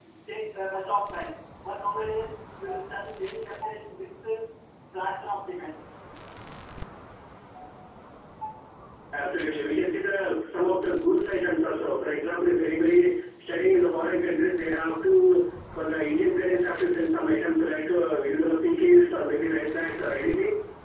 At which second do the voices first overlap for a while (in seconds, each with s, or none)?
none